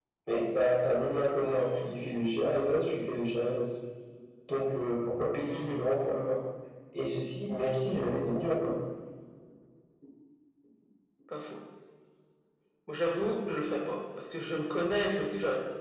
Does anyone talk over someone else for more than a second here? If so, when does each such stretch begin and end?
none

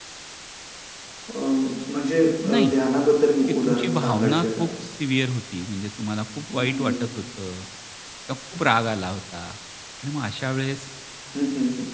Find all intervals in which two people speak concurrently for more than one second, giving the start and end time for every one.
3.5-4.7

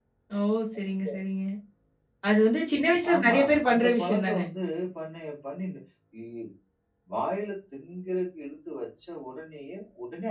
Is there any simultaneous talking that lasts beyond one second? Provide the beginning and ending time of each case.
3.1-4.4

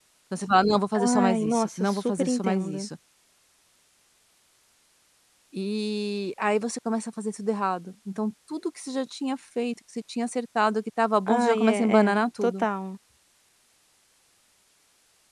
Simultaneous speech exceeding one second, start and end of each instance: 1.0-2.9, 11.4-12.6

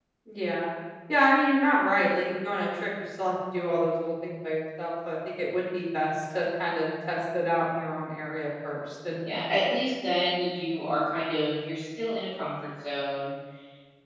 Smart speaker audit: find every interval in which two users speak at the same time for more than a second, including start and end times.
none

